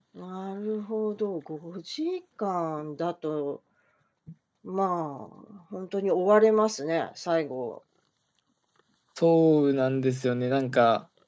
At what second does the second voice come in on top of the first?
none

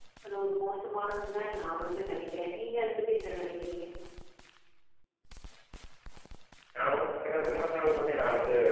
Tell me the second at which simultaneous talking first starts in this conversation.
none

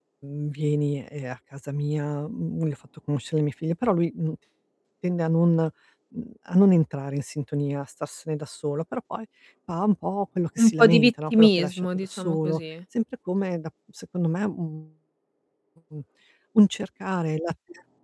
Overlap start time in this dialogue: 10.6 s

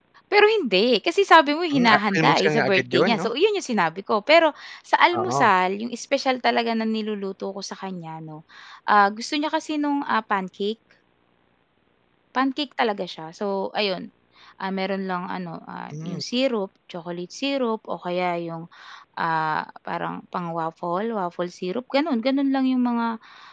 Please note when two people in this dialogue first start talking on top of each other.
1.7 s

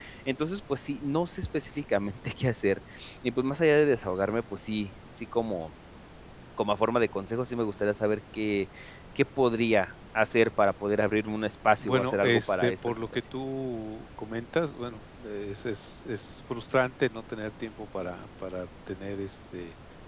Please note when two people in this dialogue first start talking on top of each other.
11.8 s

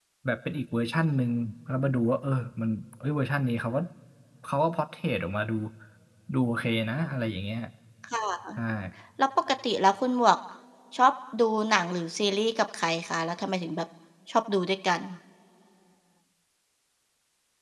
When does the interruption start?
none

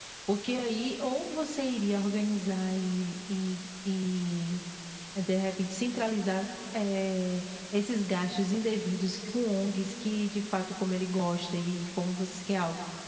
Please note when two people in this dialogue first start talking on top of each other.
none

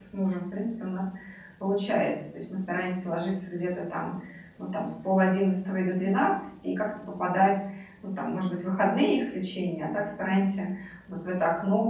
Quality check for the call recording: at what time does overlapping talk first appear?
none

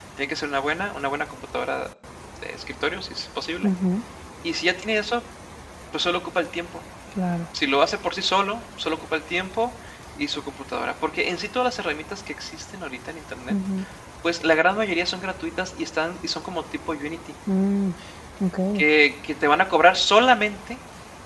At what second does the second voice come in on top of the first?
none

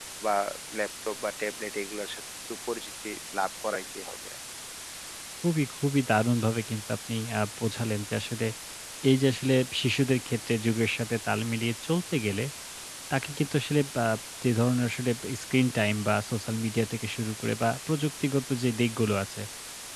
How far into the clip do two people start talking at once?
none

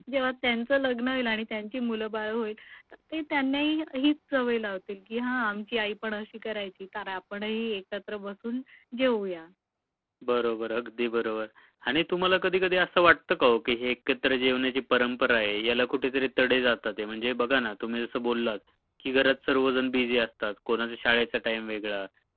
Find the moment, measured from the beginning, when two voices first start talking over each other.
none

